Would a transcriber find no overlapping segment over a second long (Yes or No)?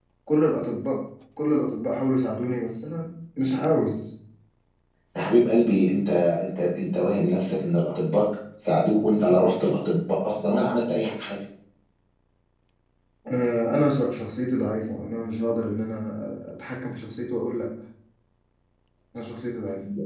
Yes